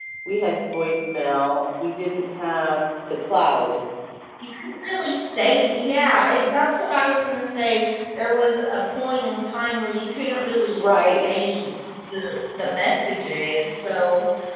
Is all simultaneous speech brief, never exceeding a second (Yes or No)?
Yes